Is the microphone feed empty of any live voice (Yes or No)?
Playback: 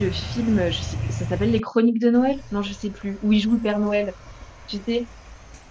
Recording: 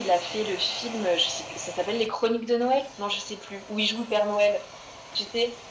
Yes